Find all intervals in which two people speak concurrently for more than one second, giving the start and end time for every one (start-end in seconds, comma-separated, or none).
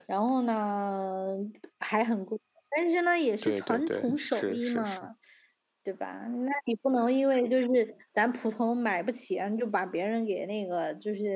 3.4-5.1